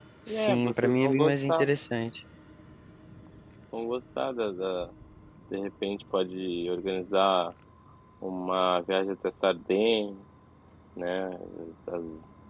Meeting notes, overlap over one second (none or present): present